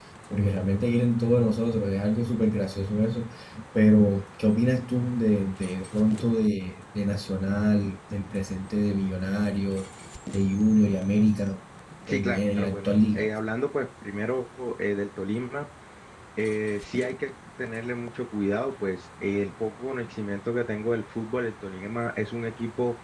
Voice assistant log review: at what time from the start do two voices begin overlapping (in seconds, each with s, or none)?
12.1 s